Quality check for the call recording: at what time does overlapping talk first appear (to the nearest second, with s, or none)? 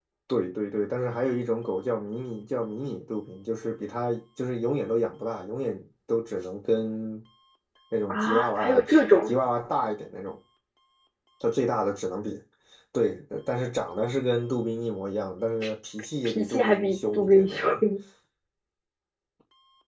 8 s